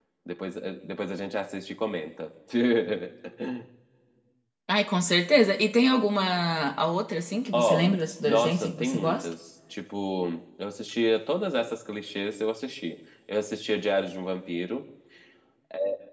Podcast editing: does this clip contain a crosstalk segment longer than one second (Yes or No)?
Yes